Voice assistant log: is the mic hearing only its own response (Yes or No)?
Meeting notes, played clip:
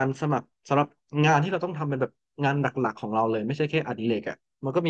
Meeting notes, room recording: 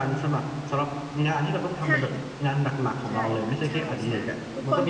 No